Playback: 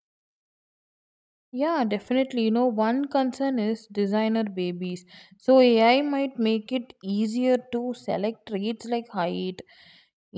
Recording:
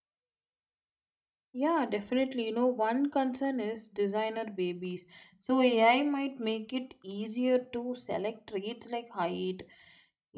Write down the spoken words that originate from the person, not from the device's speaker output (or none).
none